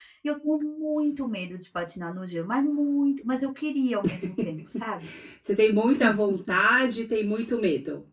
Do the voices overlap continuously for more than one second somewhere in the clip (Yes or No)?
No